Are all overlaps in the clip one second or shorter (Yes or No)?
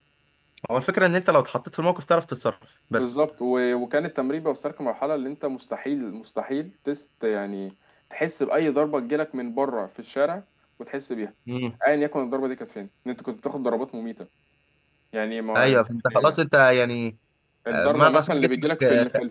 No